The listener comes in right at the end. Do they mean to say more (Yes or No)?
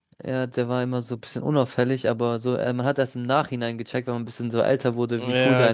Yes